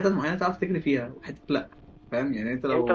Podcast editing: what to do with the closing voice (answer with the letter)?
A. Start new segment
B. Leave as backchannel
A